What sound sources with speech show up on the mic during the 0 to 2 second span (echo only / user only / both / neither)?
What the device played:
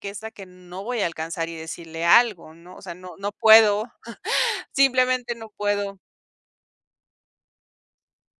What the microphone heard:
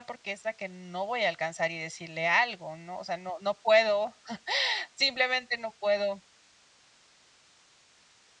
echo only